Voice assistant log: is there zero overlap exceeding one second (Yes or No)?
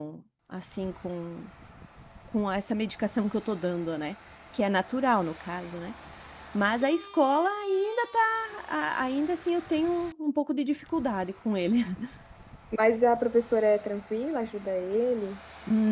Yes